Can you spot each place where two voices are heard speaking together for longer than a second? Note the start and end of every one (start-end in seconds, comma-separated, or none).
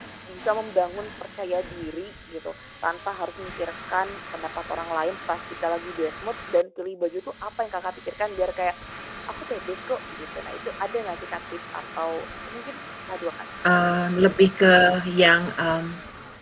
none